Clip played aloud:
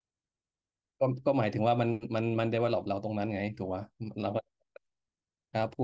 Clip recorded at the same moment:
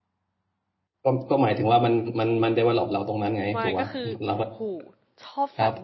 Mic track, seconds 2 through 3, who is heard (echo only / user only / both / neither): echo only